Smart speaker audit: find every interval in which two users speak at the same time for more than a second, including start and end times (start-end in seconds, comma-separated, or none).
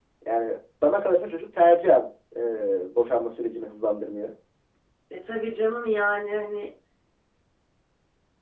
none